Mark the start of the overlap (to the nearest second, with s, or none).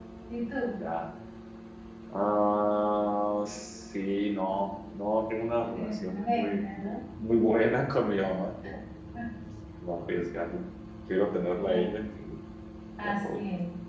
6 s